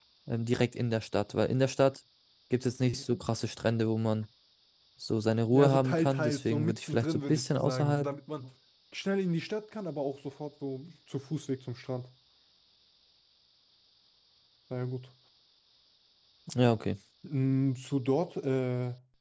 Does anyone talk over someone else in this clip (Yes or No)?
Yes